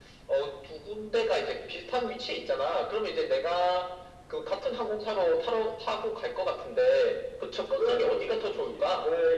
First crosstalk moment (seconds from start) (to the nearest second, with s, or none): 8 s